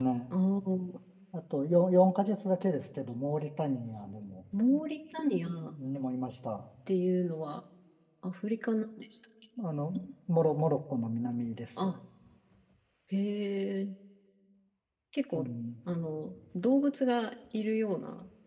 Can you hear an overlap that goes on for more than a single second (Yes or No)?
No